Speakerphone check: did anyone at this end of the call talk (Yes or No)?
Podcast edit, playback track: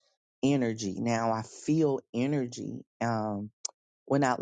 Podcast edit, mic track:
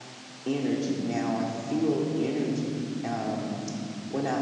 No